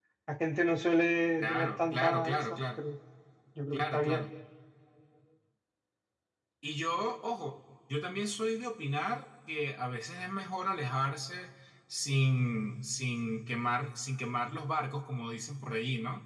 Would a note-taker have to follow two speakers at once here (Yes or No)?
Yes